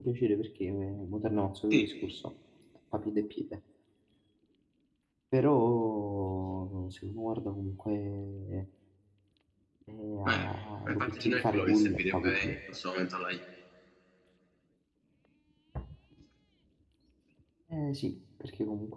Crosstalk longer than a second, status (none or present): present